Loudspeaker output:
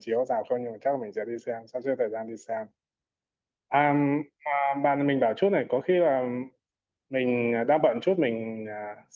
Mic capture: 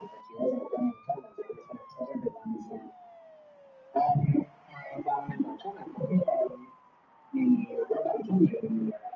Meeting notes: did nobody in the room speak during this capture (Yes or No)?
Yes